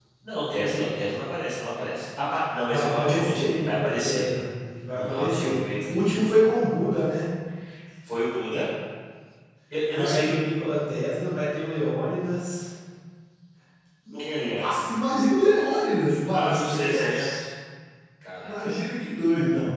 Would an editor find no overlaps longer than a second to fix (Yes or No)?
No